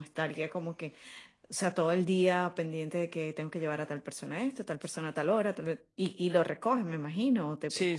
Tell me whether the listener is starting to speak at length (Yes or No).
Yes